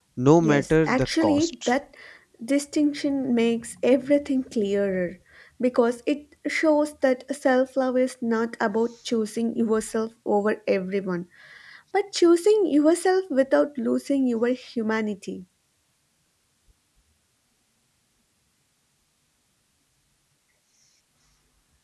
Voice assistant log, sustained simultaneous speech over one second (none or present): present